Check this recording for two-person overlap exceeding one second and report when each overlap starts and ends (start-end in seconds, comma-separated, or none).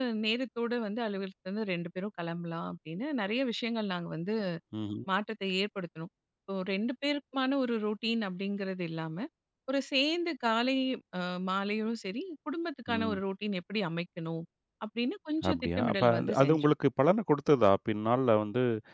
15.5-16.7